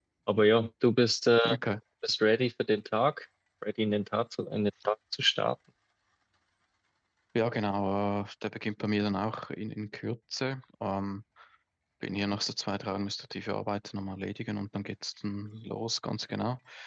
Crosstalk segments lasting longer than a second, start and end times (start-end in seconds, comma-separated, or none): none